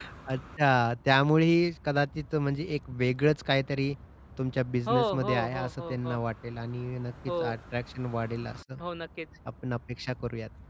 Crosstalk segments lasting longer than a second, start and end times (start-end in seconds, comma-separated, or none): 4.9-6.2